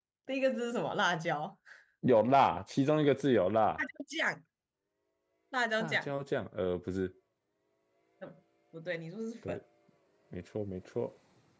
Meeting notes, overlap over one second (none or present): none